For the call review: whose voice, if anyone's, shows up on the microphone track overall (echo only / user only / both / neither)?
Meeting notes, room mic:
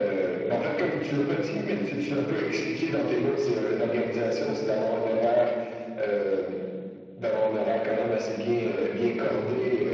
echo only